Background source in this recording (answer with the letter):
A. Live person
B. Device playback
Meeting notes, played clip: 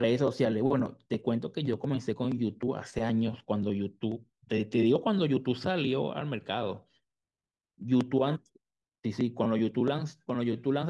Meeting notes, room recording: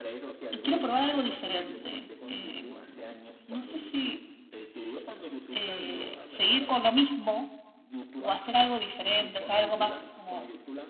B